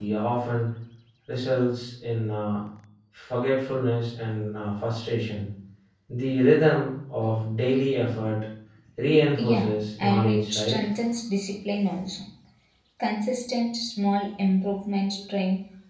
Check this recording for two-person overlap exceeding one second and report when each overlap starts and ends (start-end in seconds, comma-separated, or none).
9.4-10.8